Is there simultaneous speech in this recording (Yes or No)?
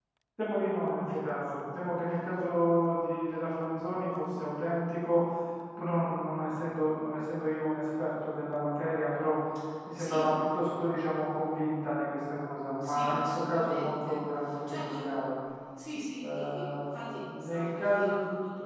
Yes